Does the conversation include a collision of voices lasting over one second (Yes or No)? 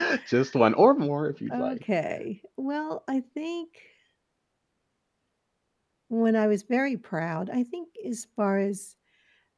No